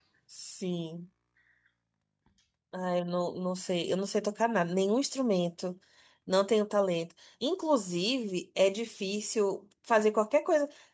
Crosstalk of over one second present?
No

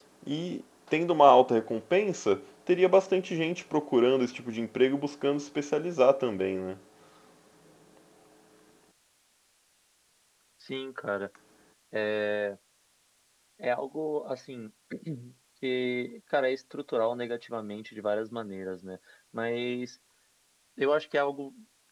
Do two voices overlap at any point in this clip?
No

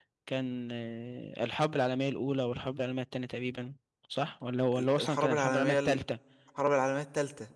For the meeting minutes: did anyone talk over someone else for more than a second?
Yes, from 4.7 s

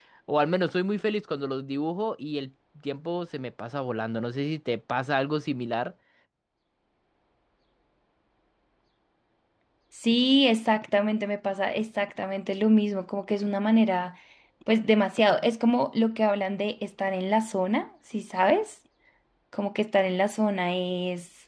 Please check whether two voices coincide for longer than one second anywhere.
No

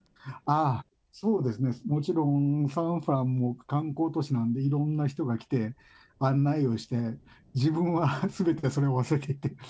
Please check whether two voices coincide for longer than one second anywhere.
No

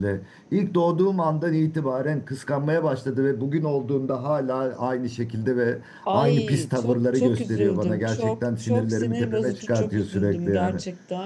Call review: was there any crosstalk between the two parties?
Yes, from 6.1 s

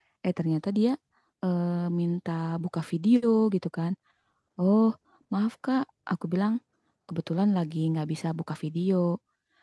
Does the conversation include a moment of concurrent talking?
No

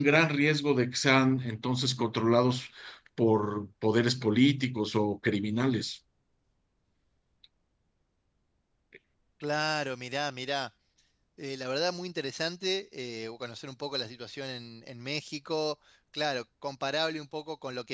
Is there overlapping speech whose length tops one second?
No

